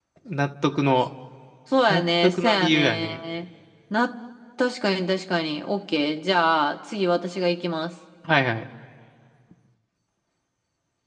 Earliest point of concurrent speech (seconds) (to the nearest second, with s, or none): 2 s